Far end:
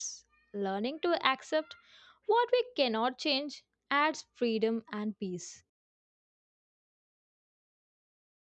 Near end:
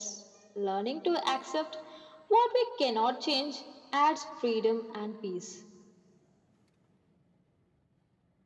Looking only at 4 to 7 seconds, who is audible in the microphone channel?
echo only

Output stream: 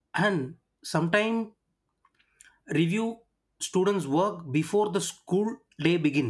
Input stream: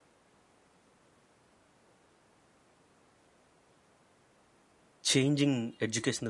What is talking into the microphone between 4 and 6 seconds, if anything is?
user only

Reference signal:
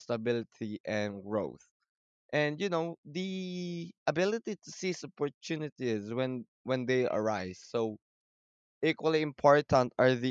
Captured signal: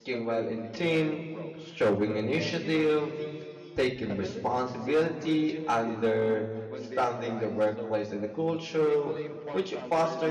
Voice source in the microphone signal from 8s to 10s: both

